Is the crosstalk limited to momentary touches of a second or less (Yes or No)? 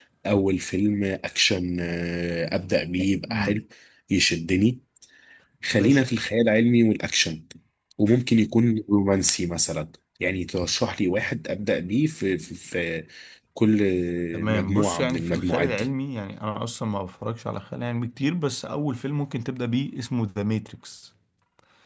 No